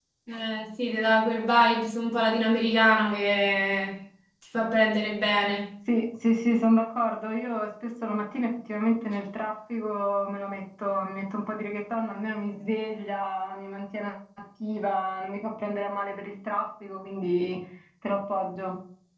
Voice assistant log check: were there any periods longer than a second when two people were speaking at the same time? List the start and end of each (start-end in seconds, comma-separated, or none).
none